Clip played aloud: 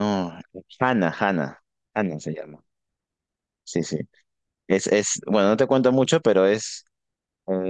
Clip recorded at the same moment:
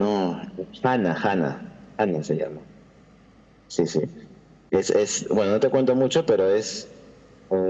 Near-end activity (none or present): none